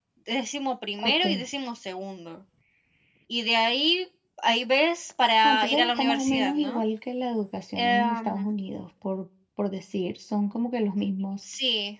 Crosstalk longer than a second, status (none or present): present